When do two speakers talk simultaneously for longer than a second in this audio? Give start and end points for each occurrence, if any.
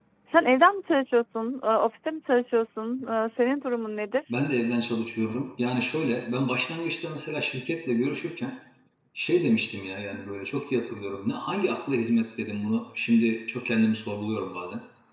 none

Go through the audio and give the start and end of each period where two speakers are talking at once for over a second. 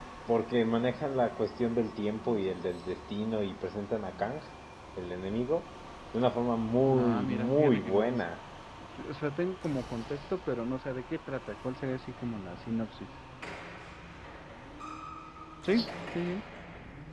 6.9-8.2

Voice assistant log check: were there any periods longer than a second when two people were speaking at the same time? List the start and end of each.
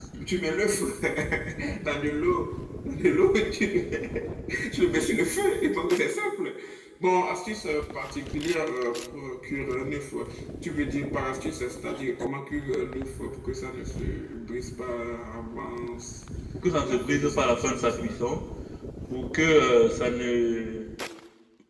16.8-18.0

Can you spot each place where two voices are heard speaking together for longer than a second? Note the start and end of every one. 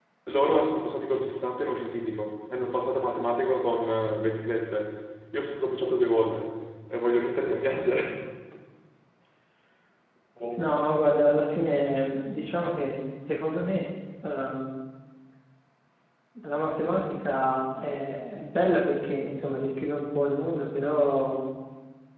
none

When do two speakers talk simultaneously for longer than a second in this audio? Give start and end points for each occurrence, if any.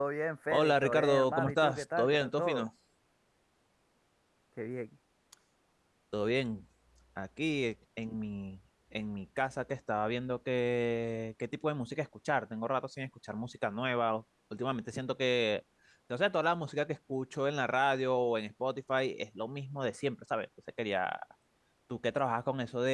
0.5-2.6

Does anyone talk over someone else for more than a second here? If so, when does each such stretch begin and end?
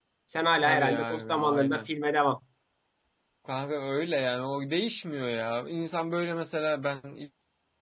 0.6-1.9

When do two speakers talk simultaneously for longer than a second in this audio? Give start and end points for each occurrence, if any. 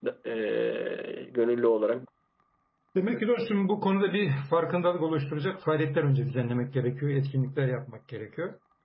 none

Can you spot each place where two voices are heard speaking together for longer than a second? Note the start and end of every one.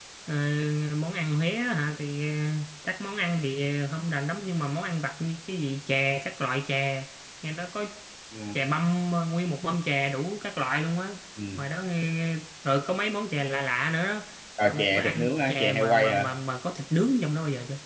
14.7-16.3

